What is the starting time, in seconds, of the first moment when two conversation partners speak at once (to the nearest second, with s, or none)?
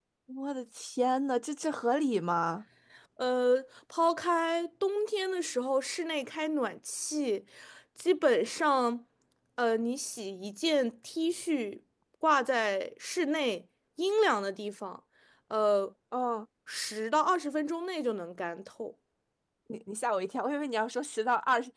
none